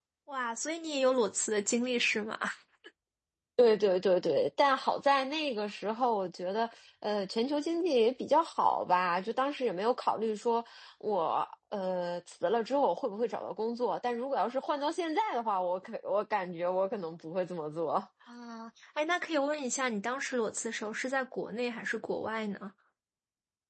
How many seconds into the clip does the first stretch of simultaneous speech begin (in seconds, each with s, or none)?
none